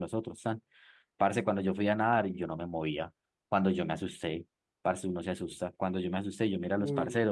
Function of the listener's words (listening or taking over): listening